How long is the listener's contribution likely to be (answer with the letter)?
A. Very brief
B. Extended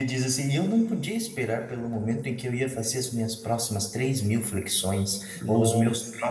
A